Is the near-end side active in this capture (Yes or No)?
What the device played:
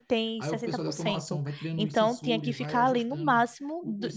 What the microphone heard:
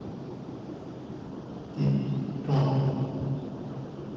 Yes